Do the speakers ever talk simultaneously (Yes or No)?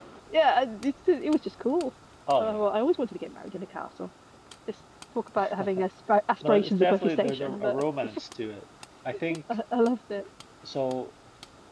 Yes